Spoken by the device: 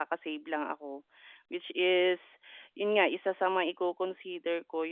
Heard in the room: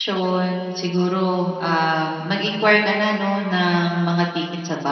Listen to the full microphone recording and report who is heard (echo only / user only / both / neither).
user only